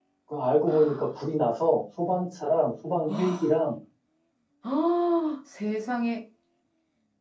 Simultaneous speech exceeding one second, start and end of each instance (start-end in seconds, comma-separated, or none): none